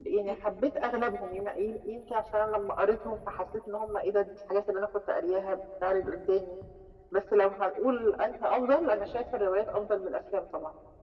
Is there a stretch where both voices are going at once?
No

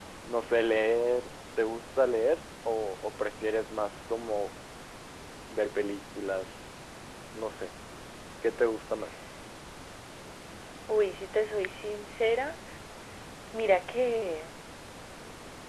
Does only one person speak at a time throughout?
Yes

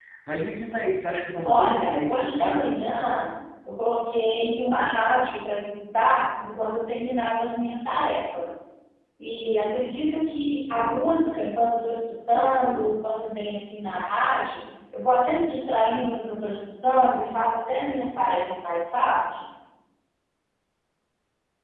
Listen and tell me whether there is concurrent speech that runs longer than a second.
Yes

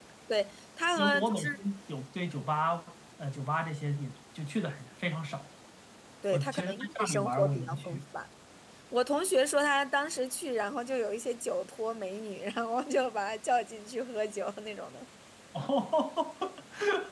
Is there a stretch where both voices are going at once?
Yes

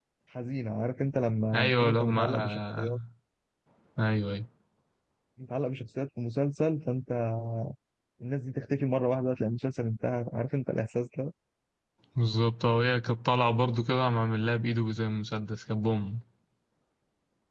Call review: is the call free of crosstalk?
No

